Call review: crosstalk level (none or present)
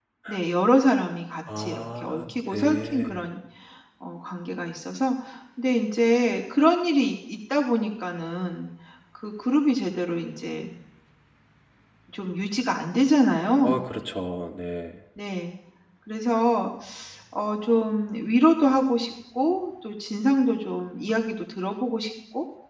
present